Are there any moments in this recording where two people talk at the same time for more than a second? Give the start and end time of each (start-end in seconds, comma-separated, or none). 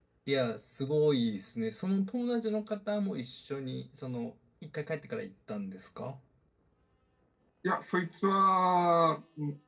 none